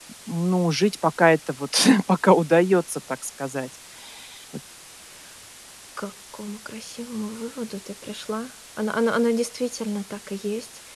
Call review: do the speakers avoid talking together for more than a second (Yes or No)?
Yes